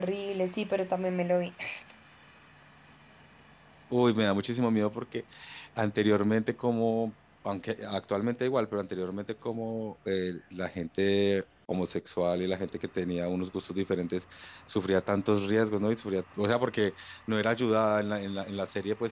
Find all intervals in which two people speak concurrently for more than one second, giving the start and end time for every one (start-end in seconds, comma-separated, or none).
none